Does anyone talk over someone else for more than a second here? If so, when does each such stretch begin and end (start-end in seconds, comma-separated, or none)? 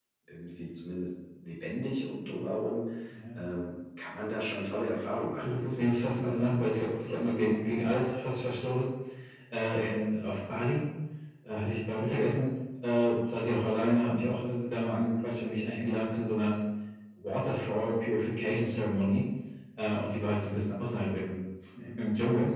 5.4-7.8